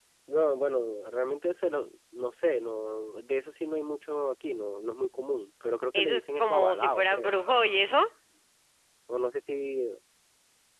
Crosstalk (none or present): present